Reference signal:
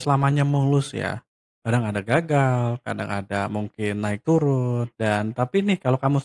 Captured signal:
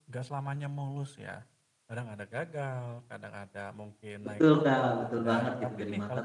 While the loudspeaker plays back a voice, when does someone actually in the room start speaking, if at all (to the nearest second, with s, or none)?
4 s